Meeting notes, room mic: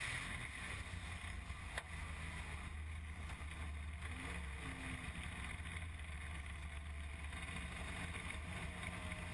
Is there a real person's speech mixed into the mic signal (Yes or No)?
No